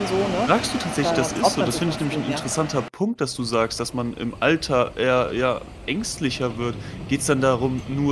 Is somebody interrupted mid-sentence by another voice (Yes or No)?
Yes